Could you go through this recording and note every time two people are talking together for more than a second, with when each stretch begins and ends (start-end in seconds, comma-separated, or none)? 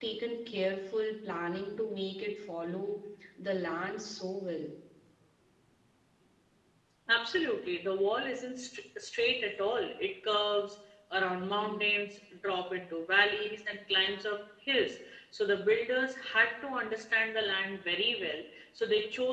none